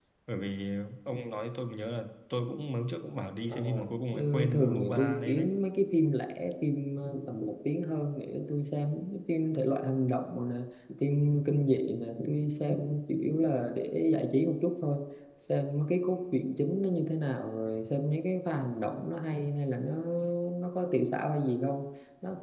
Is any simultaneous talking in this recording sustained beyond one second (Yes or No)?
Yes